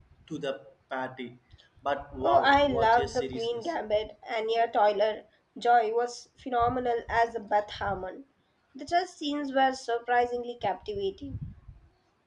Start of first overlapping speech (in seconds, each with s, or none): 2.2 s